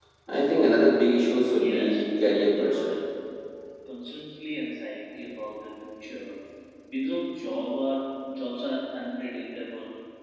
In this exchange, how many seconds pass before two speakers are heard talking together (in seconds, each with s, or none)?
1.5 s